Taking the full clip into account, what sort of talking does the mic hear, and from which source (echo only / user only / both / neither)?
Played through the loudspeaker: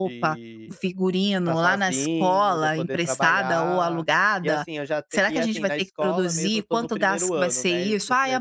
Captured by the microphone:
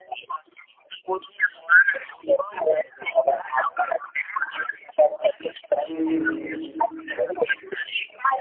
both